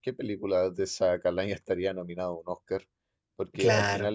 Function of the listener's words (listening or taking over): listening